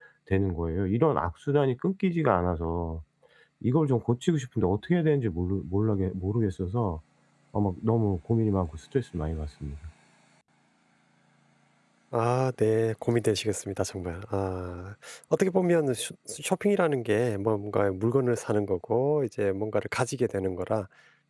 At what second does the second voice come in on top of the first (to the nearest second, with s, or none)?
none